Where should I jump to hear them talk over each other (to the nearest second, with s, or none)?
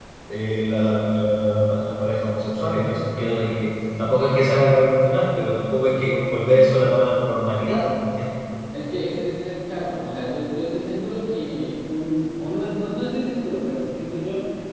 none